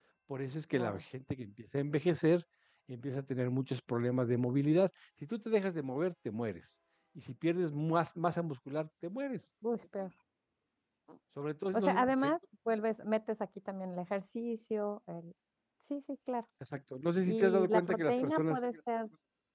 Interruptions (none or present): present